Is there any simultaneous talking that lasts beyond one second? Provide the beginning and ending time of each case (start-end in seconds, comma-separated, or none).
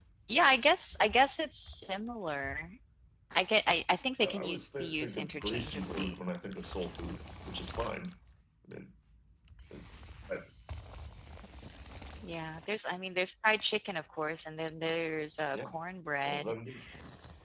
4.2-6.1